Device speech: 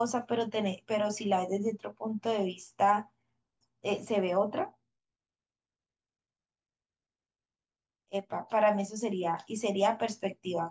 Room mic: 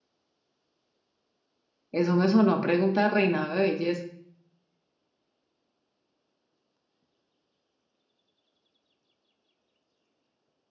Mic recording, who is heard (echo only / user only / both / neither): user only